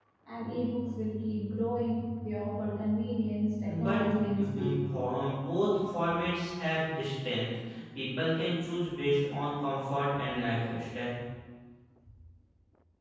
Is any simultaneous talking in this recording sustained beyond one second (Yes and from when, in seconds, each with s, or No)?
Yes, from 3.6 s